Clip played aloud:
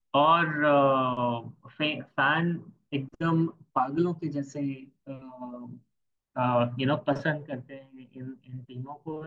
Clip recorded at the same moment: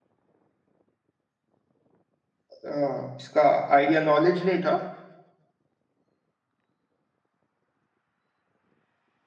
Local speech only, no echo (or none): आ, इसका आइडिया नॉलेज नहीं था